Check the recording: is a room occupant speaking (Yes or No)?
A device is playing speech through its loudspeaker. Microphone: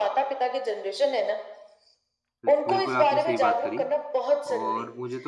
Yes